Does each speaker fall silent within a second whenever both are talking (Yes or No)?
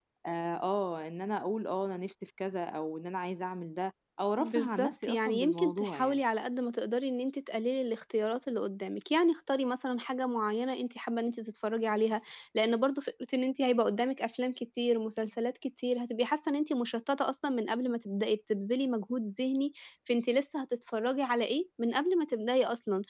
No